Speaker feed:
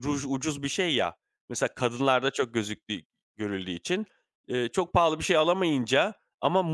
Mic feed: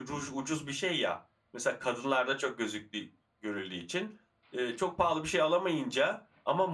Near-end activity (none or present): none